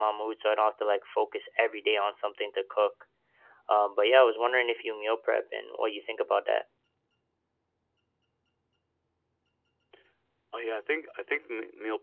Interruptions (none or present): none